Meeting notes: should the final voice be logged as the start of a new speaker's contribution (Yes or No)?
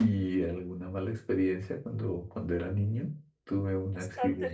Yes